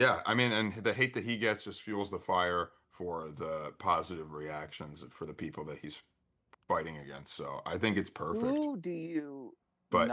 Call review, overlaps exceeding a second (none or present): none